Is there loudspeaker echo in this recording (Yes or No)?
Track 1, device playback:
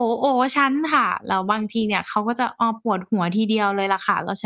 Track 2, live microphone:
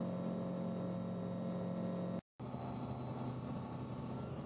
No